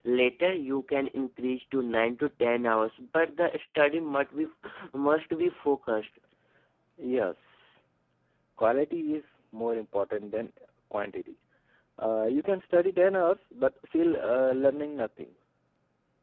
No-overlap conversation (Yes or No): Yes